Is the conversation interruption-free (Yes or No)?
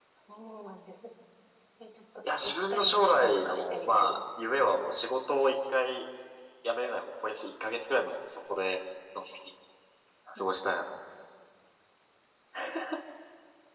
No